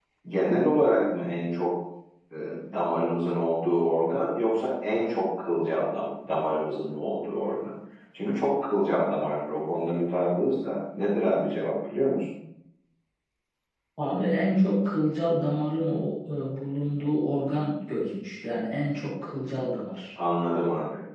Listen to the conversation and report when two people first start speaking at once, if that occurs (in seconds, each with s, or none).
none